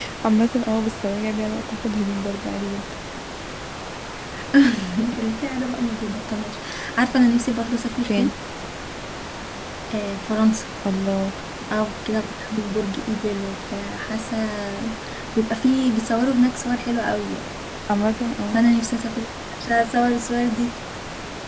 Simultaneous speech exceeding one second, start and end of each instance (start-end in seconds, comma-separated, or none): none